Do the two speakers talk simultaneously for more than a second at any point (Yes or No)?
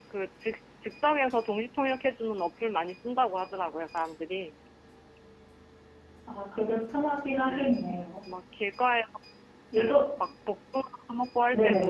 No